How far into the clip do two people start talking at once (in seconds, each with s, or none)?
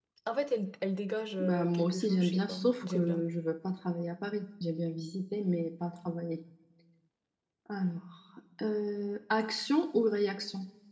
1.4 s